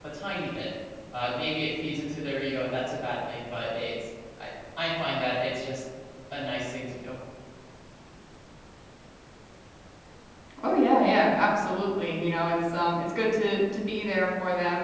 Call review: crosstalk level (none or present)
none